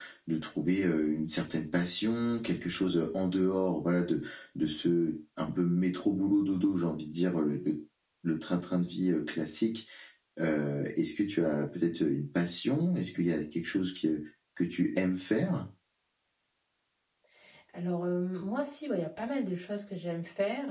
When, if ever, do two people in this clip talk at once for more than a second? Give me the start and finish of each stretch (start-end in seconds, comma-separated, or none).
none